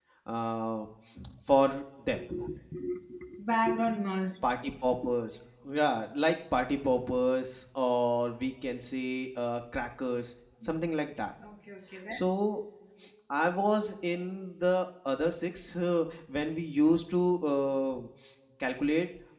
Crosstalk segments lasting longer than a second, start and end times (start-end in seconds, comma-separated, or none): none